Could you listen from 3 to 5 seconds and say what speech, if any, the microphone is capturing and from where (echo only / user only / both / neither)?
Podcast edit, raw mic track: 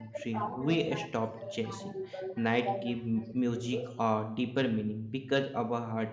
both